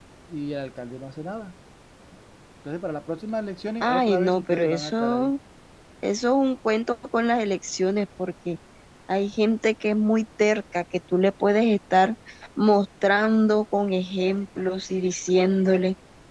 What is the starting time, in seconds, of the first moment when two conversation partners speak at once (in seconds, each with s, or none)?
3.8 s